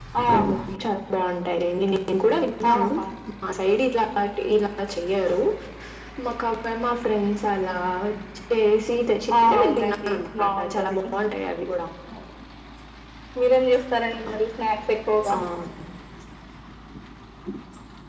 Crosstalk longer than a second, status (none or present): present